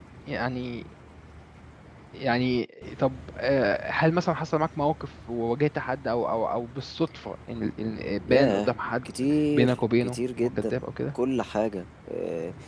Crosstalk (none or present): present